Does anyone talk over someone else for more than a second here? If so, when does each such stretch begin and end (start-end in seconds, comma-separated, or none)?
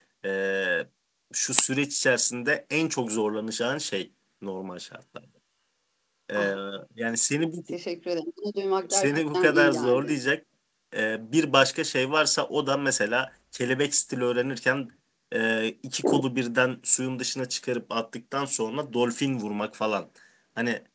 8.9-10.2